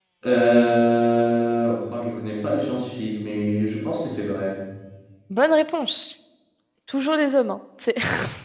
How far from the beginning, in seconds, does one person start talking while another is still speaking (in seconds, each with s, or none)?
none